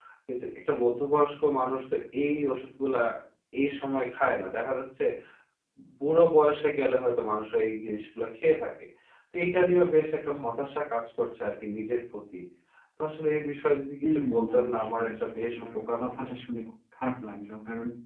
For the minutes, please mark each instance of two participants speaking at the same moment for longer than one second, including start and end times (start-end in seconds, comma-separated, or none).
14.0-16.3